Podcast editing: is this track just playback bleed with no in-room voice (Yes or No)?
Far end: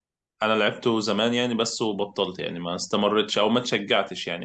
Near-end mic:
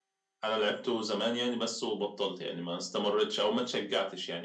Yes